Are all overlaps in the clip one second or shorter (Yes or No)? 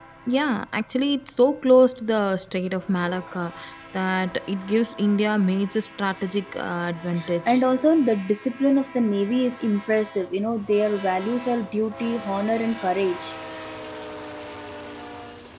Yes